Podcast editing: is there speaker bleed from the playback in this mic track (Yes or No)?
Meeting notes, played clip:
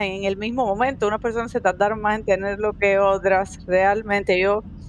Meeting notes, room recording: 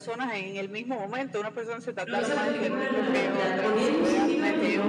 Yes